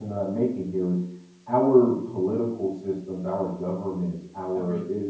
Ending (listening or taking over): listening